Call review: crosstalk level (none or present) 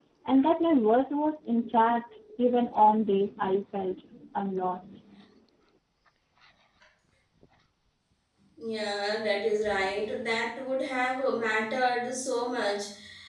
none